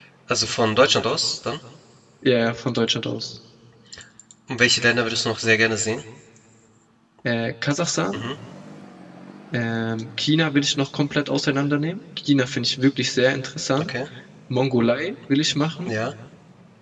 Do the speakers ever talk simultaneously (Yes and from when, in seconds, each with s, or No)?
No